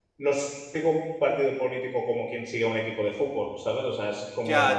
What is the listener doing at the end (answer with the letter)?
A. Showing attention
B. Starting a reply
B